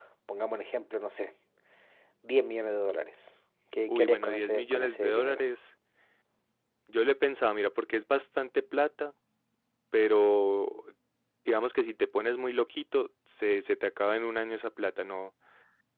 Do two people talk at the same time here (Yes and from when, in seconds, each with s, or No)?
Yes, from 3.9 s